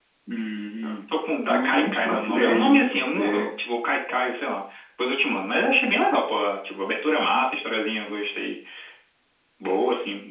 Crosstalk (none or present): present